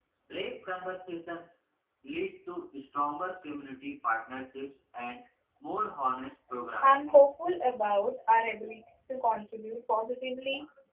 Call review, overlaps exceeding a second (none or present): none